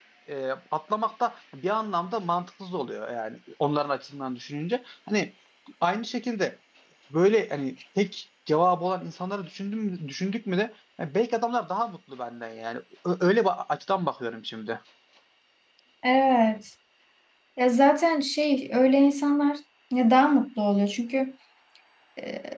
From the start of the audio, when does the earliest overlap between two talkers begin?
none

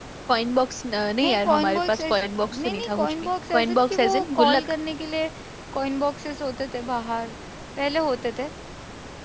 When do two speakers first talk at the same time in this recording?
1 s

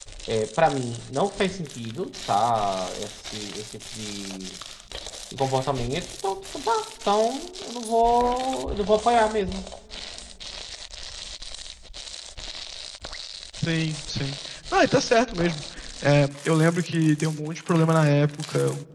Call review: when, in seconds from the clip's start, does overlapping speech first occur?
none

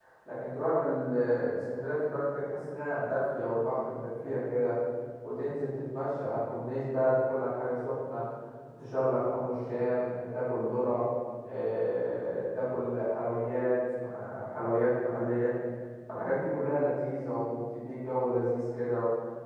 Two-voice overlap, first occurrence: none

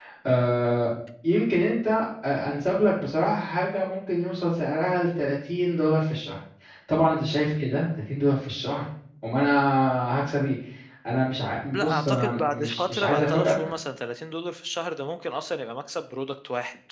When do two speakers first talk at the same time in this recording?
12 s

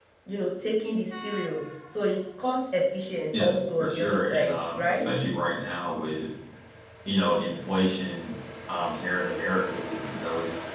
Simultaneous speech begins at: 3 s

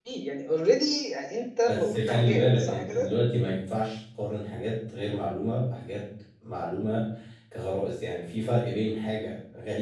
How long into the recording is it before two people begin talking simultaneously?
2 s

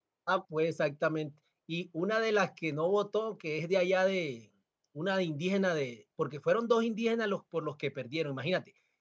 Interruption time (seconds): none

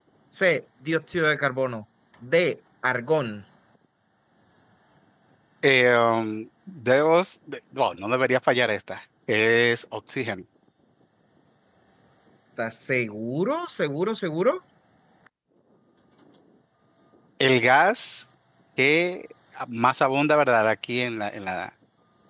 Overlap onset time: none

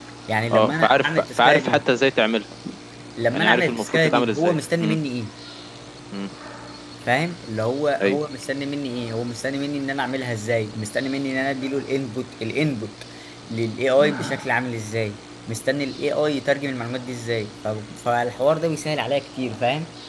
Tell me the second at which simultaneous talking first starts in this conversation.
1 s

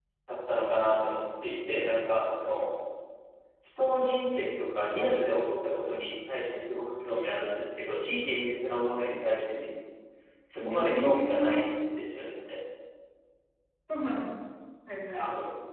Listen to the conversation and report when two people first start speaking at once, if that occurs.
11 s

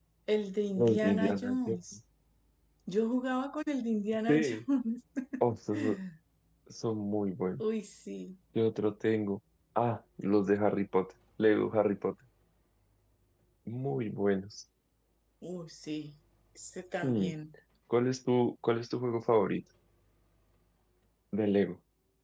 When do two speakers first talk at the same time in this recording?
1 s

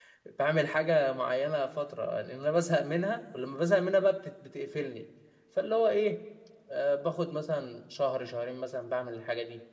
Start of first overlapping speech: none

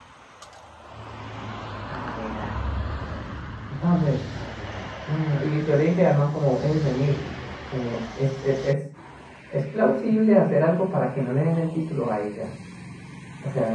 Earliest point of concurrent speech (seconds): none

